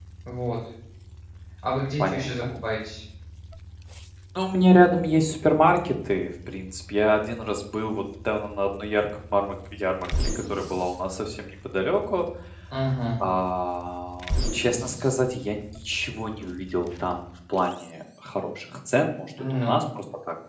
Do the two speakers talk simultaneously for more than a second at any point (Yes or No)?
No